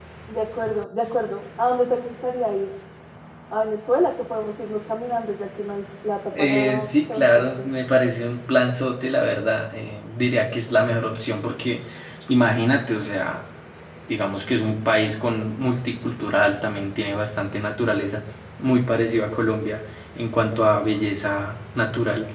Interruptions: present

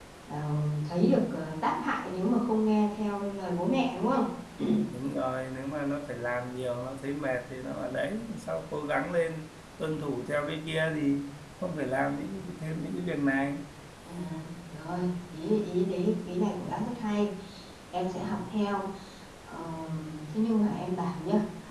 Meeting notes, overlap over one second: none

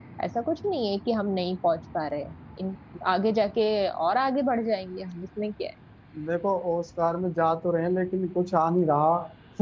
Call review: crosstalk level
none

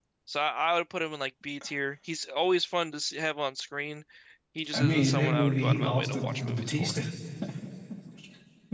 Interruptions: present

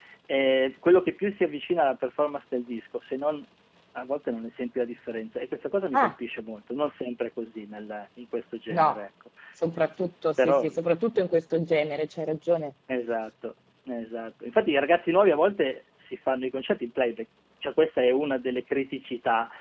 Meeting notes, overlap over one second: none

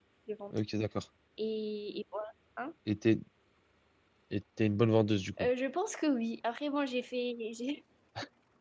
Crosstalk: none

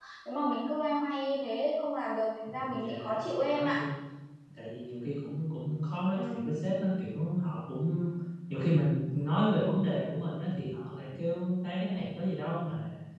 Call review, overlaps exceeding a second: present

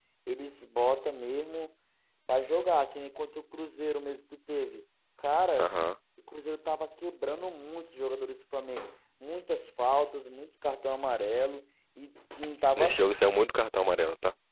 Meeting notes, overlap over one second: none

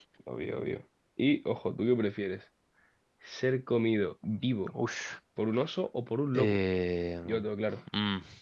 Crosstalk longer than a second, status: none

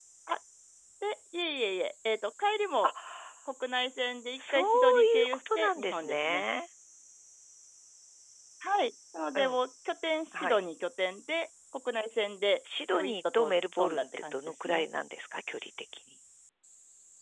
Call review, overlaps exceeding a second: present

